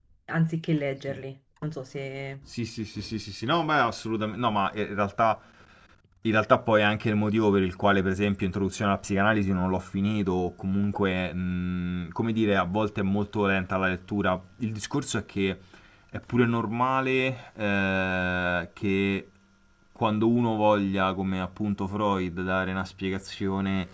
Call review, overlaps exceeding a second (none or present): none